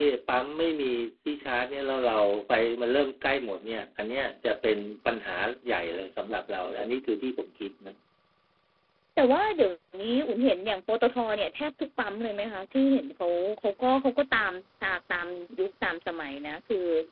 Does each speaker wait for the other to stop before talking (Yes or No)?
Yes